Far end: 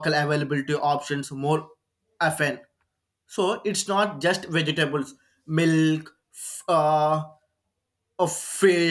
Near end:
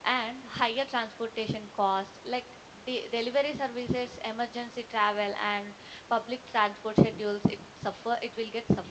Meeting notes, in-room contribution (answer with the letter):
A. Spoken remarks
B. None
A